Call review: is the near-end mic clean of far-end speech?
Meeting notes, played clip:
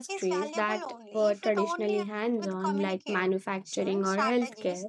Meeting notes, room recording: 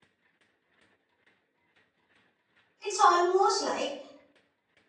Yes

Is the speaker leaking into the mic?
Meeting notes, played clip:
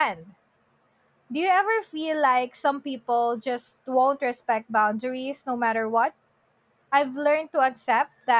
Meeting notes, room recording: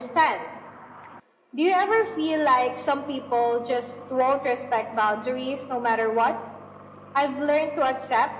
Yes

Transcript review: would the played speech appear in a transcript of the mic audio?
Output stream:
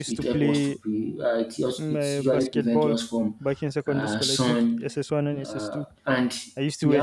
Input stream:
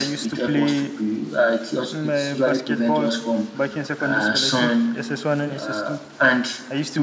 Yes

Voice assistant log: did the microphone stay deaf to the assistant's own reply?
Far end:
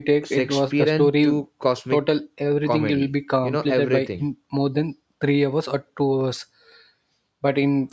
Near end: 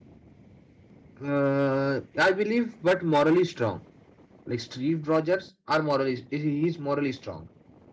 Yes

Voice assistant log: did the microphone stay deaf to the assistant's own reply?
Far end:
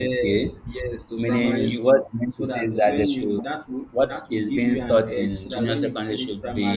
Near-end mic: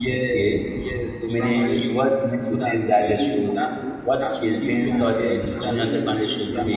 No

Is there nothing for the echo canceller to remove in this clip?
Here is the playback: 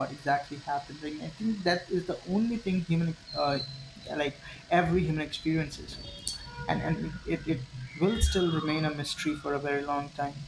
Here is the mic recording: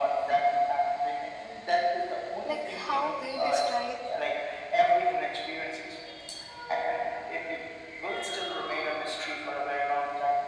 No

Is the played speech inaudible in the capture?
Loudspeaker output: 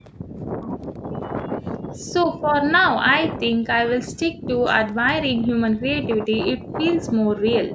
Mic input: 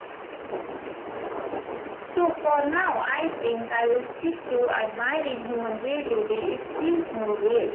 No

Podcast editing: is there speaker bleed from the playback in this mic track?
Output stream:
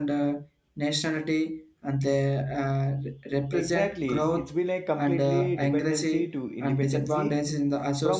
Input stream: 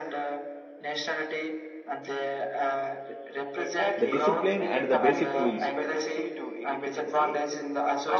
Yes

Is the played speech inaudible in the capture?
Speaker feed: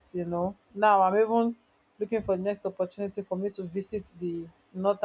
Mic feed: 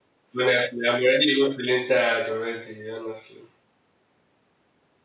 Yes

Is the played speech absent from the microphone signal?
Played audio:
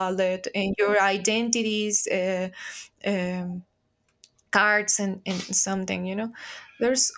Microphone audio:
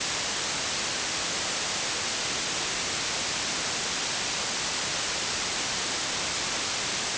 Yes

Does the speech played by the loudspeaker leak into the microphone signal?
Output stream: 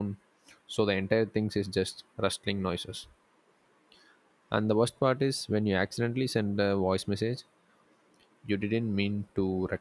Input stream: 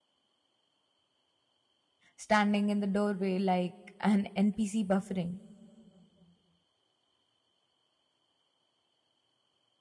No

